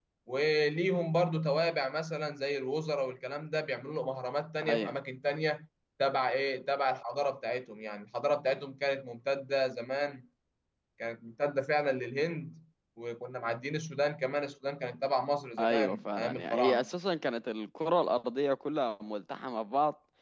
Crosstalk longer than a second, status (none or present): present